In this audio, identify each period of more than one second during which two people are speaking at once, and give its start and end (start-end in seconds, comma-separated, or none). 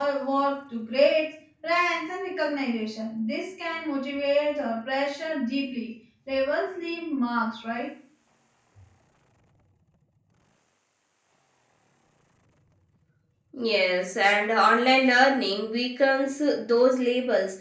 none